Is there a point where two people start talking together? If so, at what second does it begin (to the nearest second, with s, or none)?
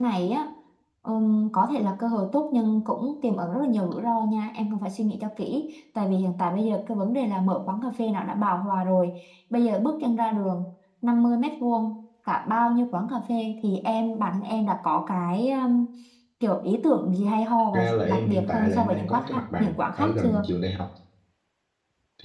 18 s